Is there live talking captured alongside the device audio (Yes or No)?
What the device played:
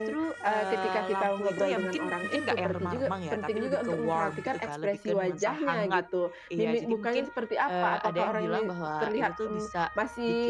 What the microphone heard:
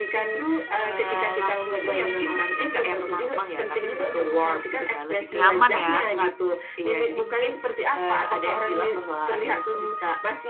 Yes